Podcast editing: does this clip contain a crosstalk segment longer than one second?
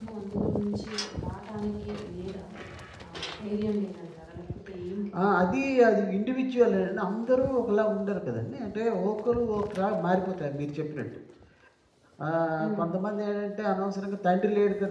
No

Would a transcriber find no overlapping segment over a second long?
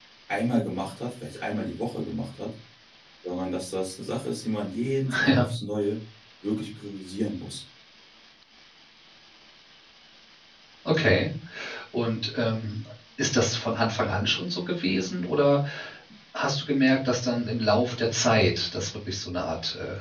Yes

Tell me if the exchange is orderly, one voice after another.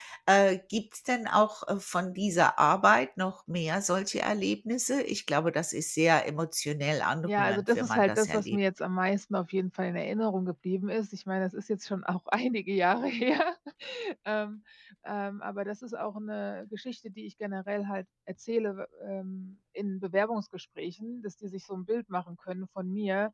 No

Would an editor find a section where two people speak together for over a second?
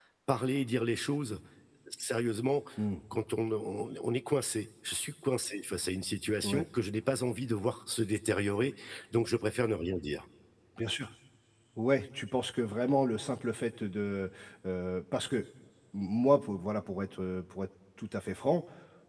No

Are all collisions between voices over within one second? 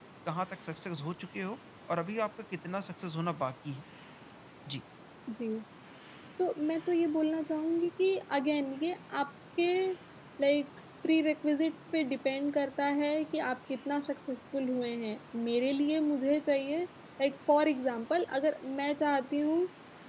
Yes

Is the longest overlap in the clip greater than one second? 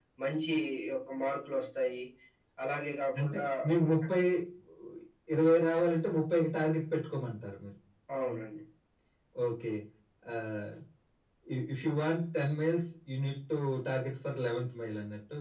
No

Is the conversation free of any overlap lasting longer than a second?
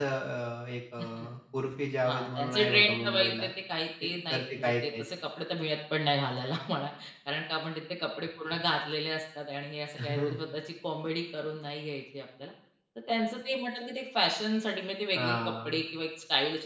No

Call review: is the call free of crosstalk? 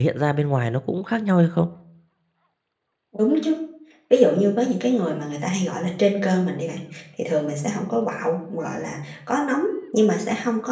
Yes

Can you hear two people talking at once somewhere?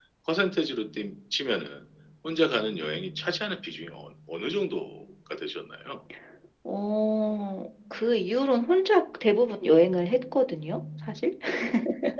No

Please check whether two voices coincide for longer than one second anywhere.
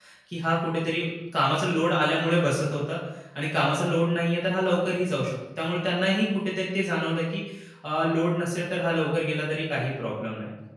No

